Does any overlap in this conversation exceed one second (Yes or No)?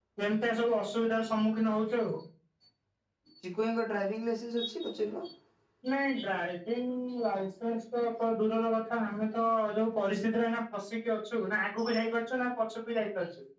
No